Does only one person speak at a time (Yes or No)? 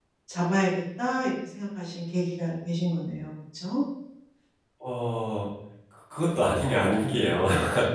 Yes